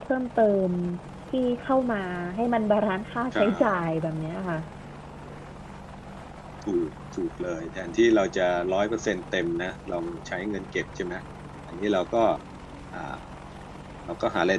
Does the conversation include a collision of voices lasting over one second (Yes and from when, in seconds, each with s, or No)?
No